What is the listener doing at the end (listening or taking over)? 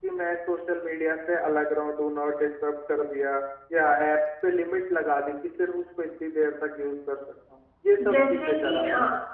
taking over